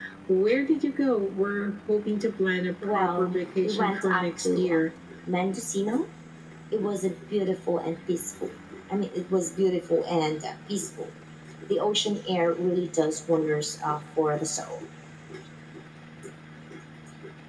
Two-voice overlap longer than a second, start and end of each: 2.9-4.9

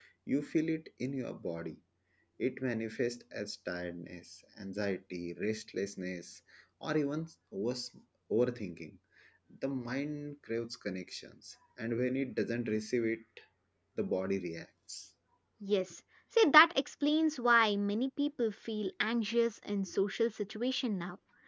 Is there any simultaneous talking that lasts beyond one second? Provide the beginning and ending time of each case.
none

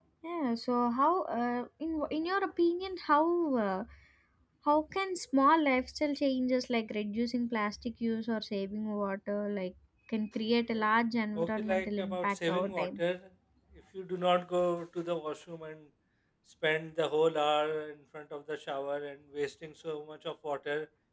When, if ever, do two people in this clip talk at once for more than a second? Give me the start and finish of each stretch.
11.4-13.0

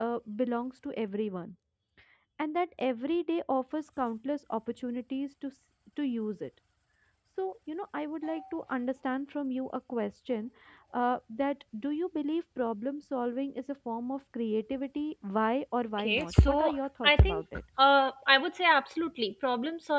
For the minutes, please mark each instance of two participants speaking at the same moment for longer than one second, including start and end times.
16.0-17.6

